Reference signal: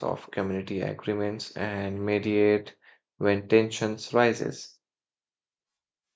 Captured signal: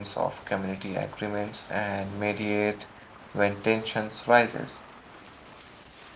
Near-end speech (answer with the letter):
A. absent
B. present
A